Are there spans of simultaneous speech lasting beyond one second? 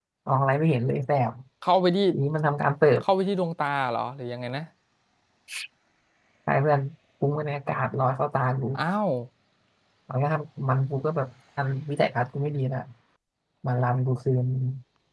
No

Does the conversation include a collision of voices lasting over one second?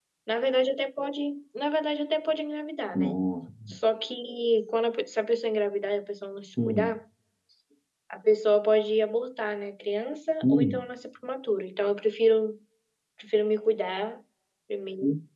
No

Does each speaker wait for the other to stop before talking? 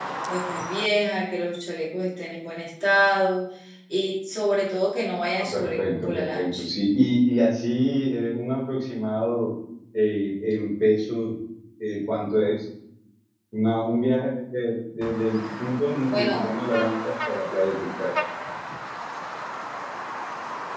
No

